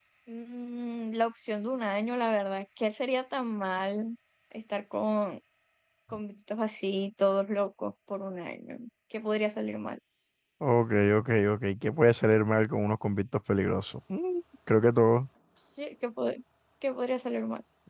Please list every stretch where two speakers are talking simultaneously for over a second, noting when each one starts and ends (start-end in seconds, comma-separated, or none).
none